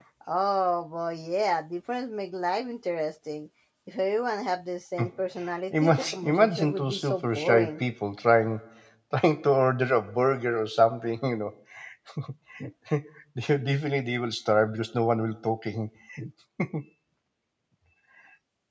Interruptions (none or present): present